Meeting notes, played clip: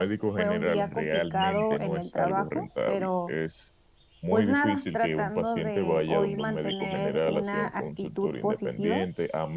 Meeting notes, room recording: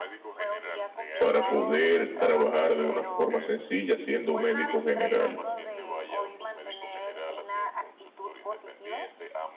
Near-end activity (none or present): present